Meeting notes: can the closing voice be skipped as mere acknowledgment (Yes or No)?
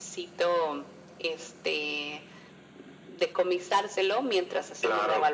Yes